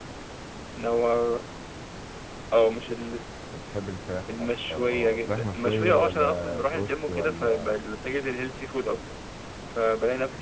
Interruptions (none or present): present